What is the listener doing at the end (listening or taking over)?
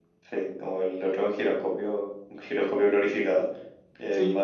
listening